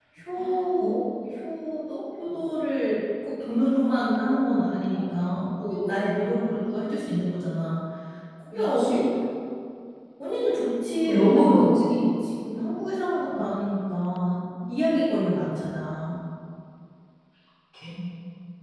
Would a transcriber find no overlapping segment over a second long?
No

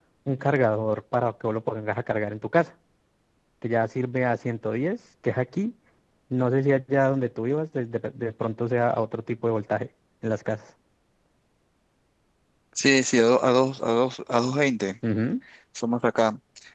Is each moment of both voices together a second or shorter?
Yes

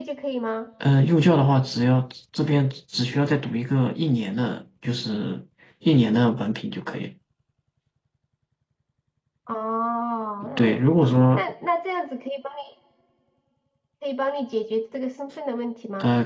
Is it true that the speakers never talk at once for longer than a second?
Yes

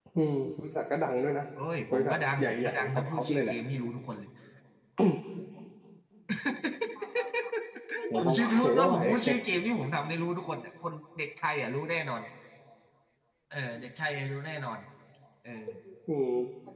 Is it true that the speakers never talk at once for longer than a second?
No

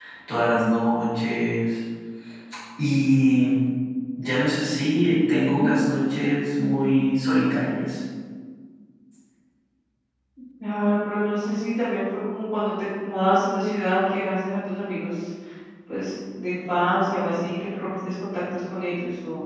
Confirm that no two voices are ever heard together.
Yes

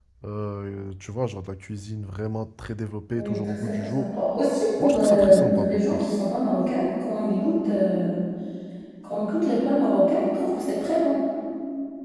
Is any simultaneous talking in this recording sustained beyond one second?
Yes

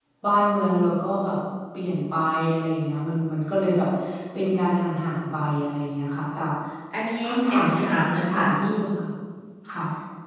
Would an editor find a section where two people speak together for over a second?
Yes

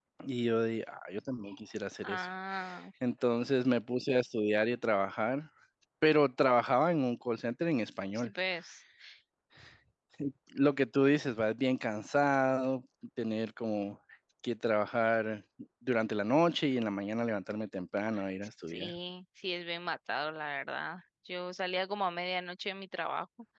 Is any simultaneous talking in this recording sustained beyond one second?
No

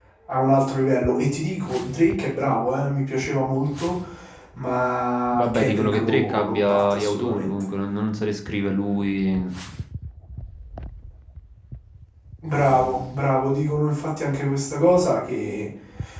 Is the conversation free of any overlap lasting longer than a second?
No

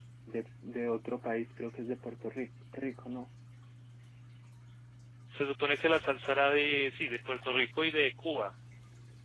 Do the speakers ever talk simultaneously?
No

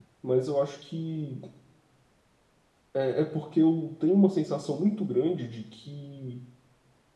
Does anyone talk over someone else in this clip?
No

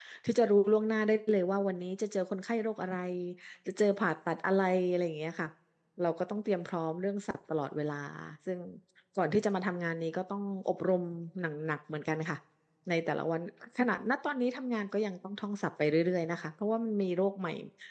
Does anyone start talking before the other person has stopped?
No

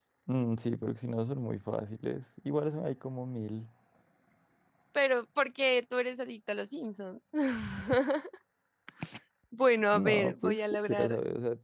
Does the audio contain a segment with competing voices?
Yes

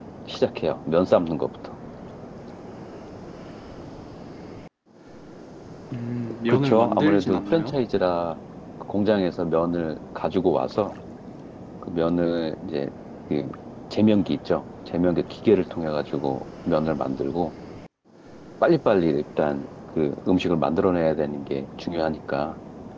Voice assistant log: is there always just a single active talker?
No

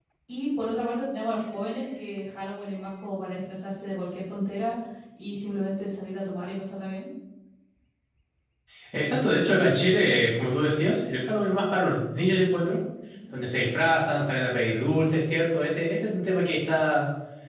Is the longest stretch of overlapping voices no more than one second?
Yes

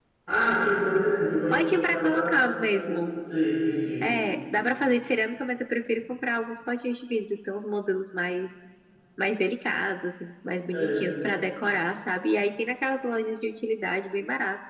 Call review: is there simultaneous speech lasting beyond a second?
Yes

